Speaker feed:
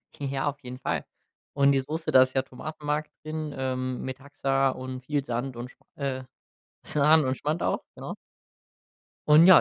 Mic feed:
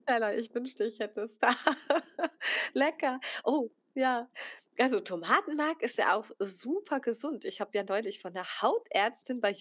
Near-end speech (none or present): present